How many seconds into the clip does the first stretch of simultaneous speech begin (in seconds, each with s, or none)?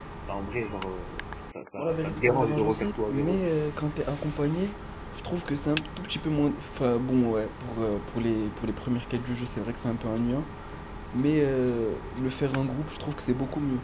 1.8 s